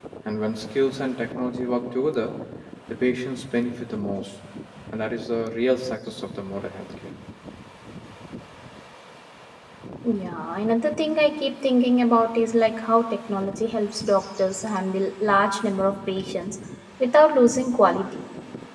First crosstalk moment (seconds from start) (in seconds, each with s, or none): none